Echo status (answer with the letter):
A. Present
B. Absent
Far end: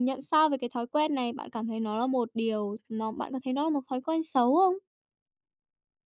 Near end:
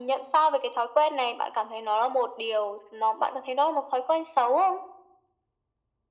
A